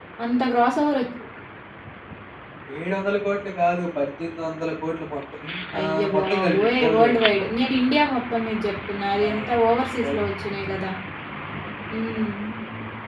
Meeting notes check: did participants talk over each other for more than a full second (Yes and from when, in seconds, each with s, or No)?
Yes, from 5.8 s